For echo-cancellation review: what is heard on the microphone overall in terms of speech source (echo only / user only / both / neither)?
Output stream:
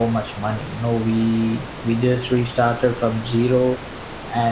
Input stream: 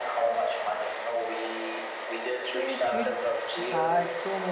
both